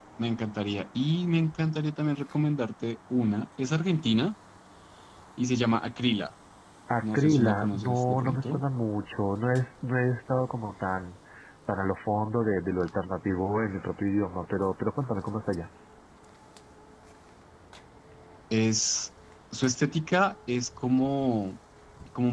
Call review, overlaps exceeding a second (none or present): present